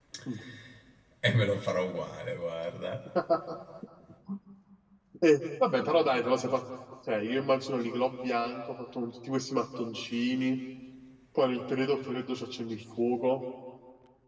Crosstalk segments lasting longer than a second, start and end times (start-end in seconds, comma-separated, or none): none